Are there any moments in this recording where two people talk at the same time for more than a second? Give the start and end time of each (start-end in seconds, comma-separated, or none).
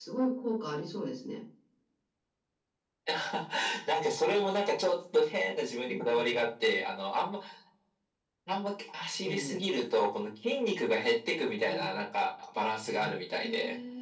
none